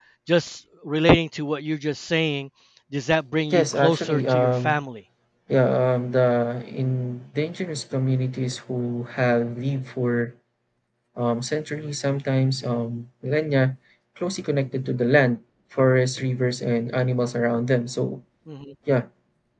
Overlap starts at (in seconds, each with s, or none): 3.5 s